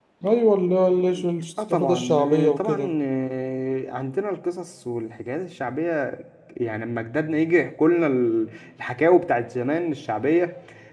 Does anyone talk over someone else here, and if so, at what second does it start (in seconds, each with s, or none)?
1.6 s